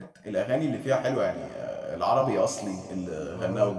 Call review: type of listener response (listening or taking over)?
listening